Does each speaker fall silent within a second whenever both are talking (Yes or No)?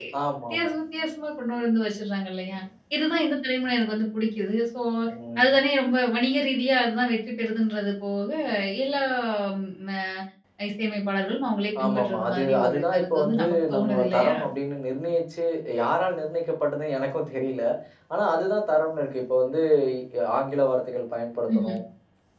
No